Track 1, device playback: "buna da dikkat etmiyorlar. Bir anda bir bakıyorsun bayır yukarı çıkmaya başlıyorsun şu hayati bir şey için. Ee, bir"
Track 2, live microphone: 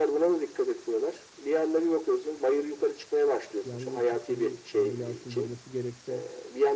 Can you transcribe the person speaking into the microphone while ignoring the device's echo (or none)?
yangın çıksa bir ambulansın girmesi gerekse